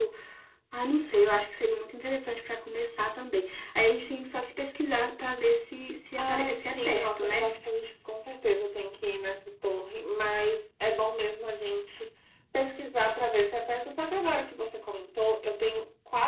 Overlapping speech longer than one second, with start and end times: 6.2-7.5

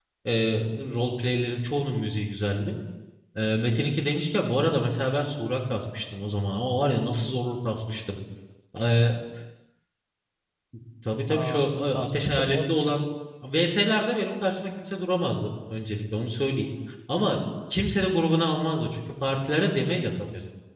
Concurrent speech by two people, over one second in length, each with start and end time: 11.4-13.0

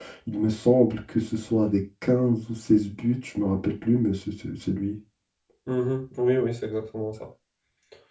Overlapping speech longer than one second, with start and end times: none

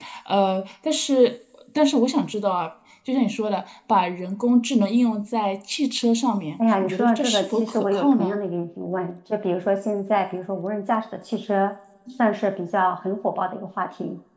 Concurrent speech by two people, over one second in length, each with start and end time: 6.8-8.4

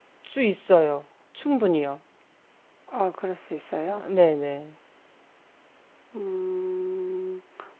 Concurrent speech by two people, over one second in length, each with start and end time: none

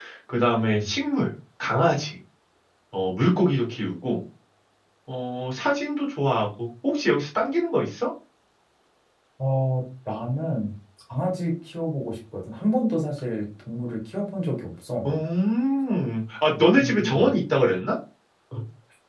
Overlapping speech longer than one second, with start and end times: none

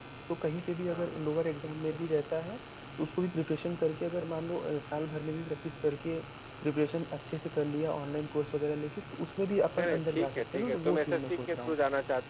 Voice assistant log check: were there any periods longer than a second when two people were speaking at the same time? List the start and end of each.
9.8-11.8

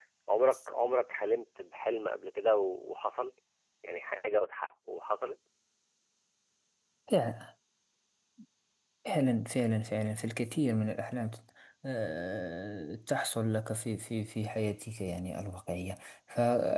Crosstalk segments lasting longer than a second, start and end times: none

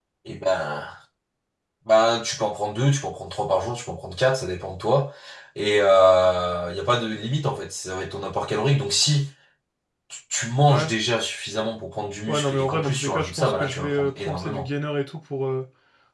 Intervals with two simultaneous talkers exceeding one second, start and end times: 12.3-14.6

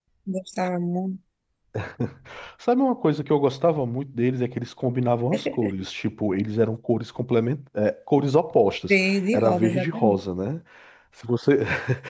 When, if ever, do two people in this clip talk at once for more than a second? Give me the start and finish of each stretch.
8.8-10.2

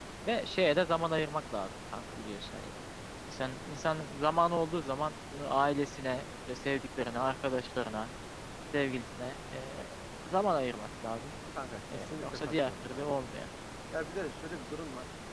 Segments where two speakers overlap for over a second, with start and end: 11.9-13.2

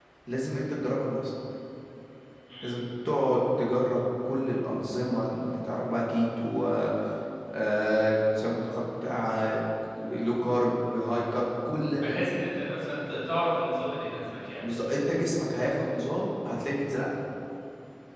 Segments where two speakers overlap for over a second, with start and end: none

